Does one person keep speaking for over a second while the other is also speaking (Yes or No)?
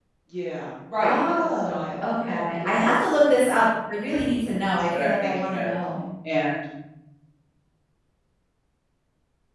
Yes